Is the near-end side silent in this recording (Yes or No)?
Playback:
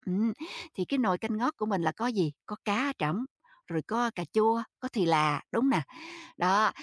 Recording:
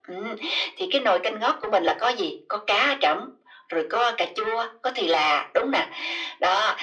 Yes